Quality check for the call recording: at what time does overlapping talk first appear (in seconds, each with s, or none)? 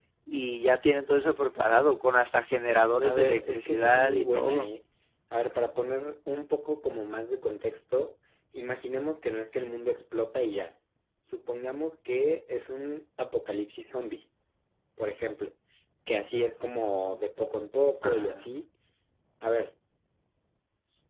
3.0 s